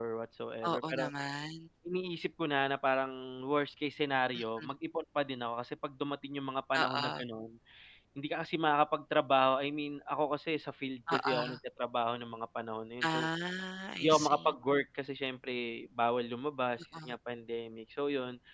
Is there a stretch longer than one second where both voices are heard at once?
No

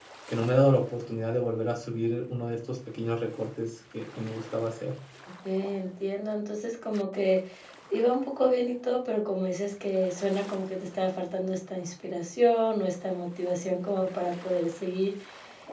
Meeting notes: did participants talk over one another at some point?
No

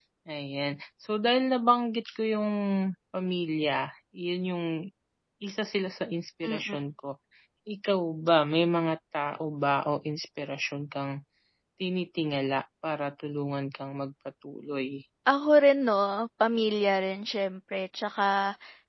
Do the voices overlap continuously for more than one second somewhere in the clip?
No

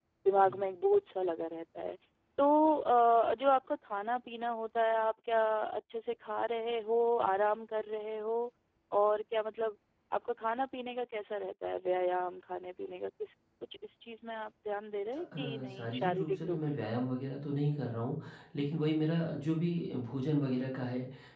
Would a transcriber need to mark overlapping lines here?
Yes, from 15.3 s

